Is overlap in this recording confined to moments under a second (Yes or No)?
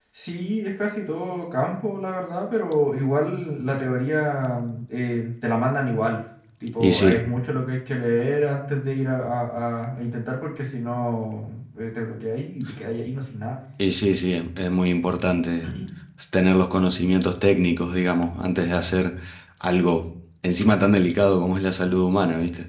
Yes